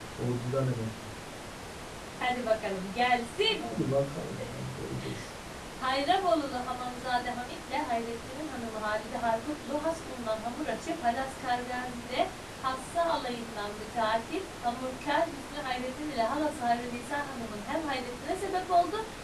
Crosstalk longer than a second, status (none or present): none